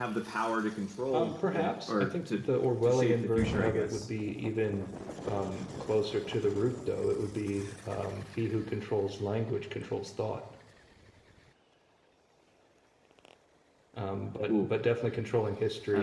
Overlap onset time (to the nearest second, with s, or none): 1 s